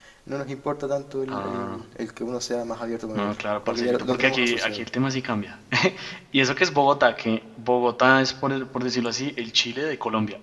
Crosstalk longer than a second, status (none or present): present